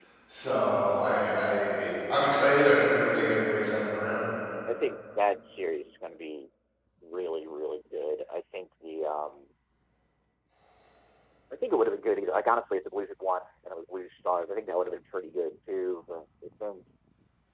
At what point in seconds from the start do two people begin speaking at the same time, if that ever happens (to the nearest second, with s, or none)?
none